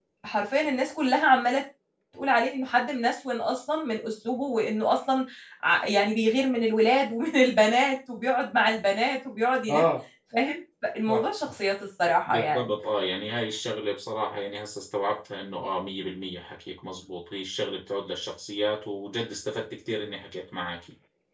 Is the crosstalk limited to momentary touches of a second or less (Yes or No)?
Yes